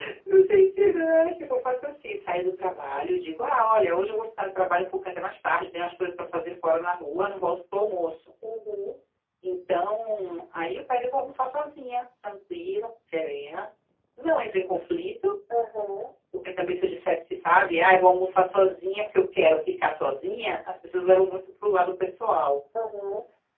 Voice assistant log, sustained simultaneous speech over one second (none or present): none